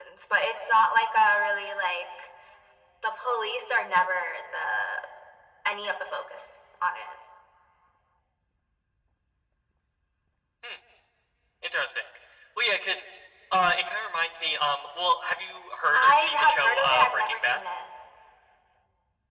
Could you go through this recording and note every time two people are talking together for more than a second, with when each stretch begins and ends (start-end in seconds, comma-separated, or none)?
15.9-17.6